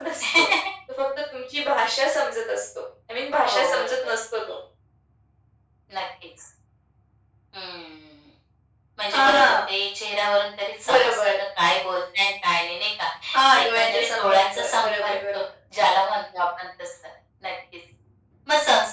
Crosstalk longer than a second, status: present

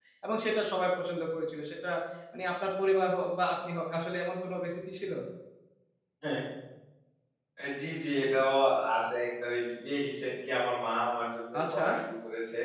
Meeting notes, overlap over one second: none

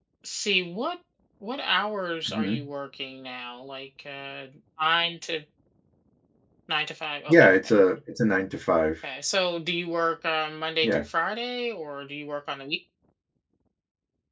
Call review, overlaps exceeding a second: none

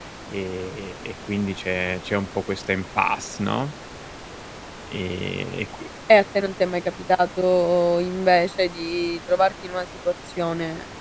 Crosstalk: none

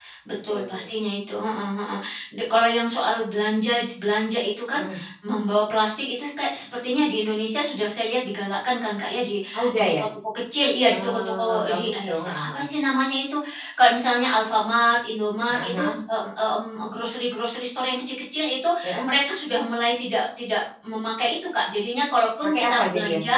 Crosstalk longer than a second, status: present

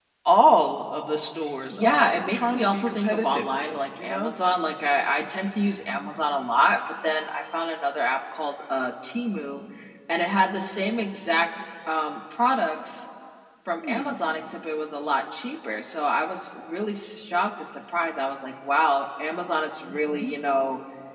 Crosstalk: present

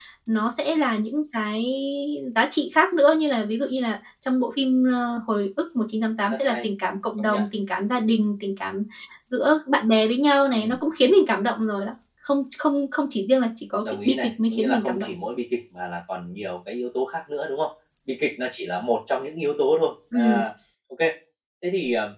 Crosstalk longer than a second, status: present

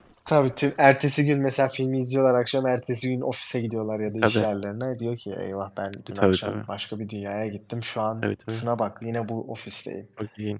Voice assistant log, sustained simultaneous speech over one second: none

